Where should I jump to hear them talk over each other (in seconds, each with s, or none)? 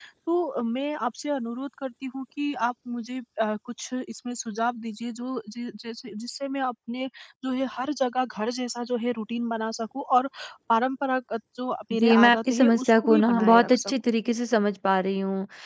11.9 s